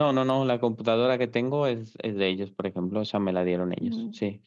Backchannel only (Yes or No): Yes